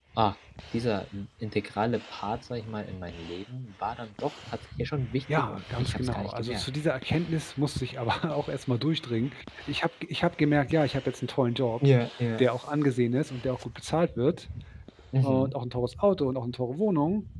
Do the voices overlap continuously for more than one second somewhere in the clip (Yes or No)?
Yes